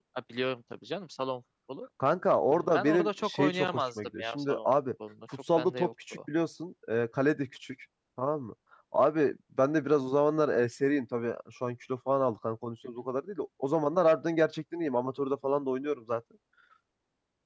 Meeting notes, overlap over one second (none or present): present